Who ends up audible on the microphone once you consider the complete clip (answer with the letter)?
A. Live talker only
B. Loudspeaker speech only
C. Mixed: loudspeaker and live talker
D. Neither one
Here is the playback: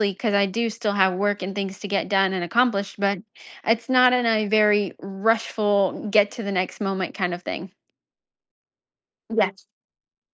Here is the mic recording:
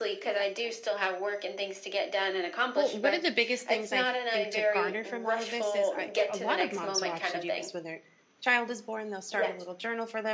C